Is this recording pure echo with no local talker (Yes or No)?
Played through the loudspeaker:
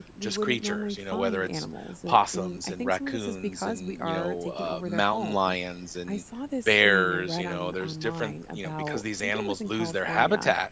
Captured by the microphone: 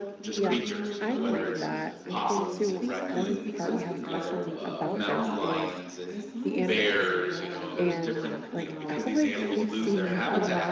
No